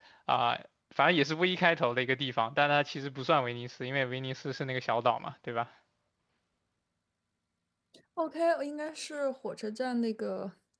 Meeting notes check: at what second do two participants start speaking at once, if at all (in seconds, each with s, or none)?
none